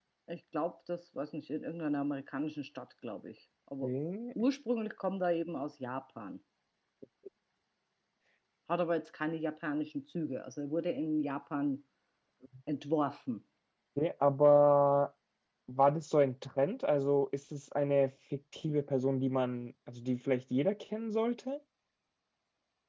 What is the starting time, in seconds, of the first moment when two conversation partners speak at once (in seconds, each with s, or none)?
none